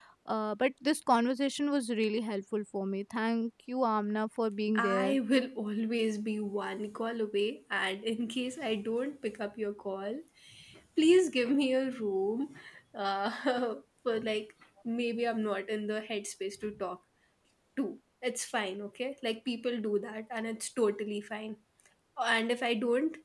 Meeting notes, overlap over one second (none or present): none